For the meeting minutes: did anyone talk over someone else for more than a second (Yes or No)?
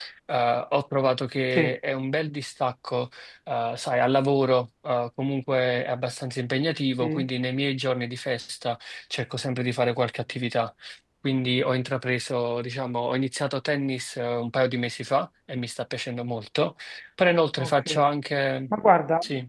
No